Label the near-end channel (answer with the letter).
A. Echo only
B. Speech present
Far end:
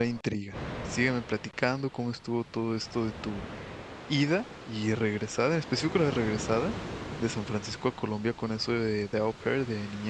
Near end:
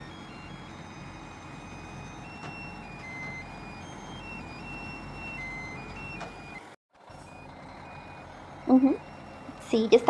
B